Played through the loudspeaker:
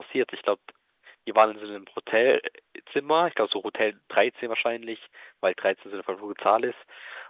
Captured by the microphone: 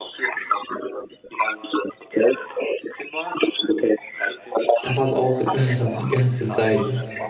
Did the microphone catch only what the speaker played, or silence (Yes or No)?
No